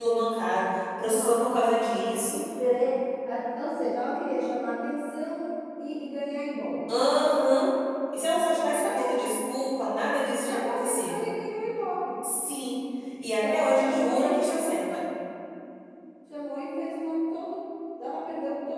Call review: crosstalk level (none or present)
present